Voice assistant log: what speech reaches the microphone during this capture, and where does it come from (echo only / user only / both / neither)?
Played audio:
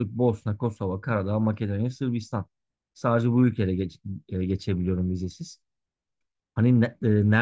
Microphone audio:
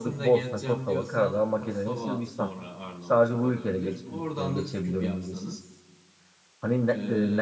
both